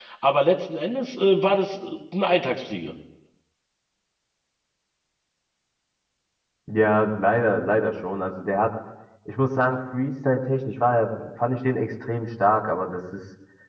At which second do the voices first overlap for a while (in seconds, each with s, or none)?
none